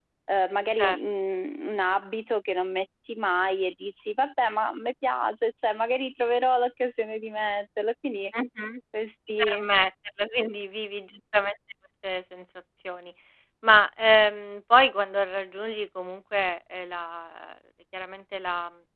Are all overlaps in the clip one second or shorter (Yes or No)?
Yes